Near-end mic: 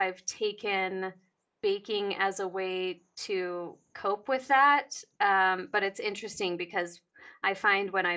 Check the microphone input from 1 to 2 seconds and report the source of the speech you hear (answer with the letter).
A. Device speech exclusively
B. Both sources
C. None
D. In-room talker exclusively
D